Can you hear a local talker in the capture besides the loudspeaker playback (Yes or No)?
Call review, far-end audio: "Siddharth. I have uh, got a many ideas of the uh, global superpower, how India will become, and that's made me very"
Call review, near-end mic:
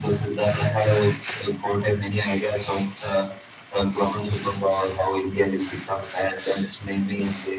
No